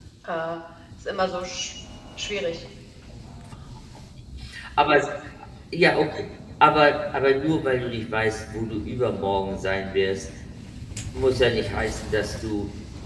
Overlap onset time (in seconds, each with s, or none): none